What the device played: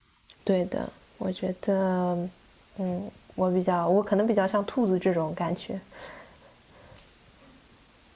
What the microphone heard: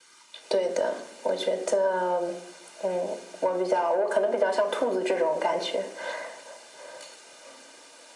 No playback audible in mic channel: No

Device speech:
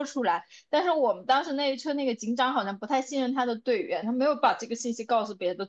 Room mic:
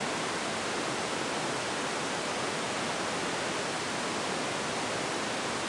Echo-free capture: Yes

